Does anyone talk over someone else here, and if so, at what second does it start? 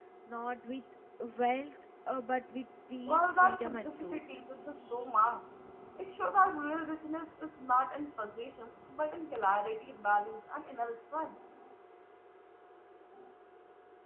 3.1 s

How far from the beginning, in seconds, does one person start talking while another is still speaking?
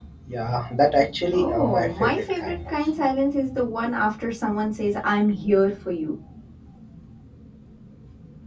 1.3 s

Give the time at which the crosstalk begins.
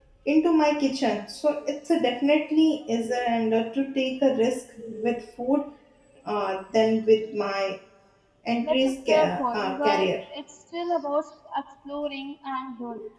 8.6 s

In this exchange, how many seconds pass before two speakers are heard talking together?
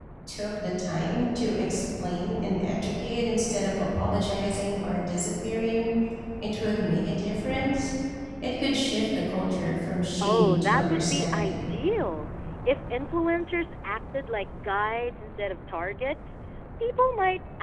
10.2 s

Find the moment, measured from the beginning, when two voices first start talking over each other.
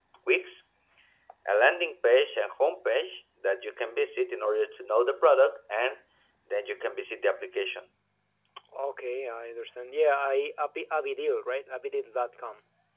none

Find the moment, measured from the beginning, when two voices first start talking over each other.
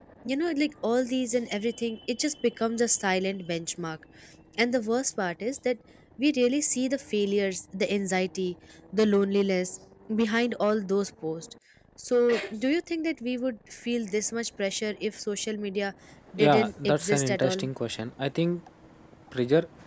16.4 s

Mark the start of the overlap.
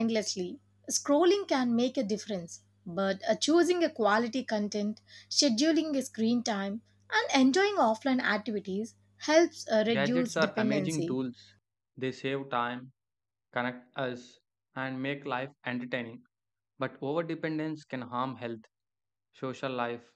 9.9 s

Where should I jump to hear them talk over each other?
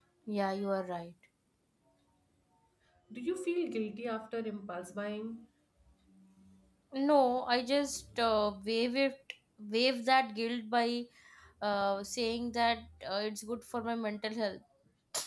none

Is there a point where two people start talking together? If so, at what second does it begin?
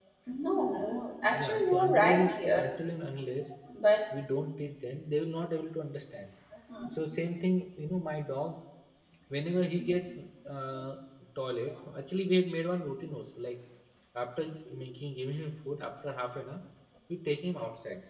1.3 s

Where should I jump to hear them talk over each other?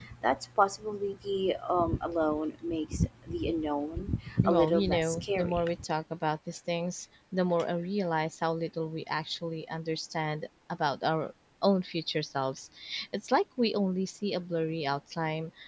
4.4 s

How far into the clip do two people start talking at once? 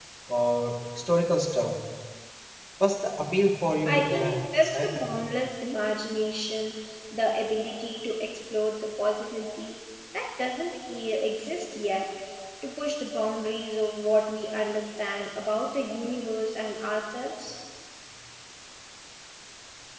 3.9 s

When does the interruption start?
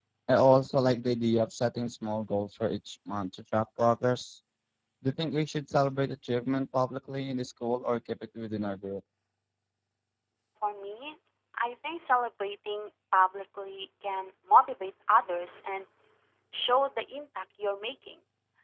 none

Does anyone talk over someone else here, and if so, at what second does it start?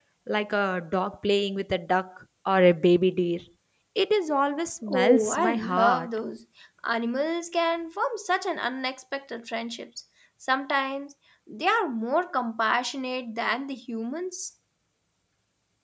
4.9 s

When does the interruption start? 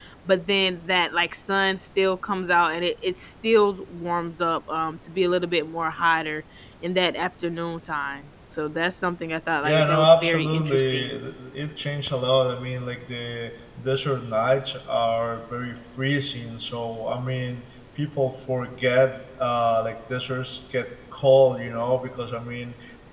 9.6 s

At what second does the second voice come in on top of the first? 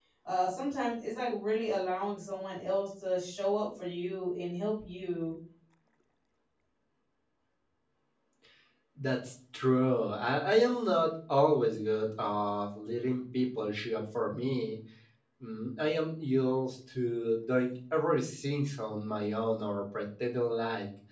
none

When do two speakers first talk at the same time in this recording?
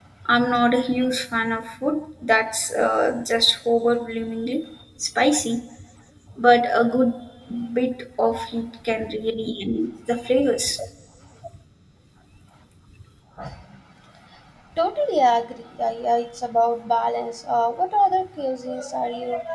none

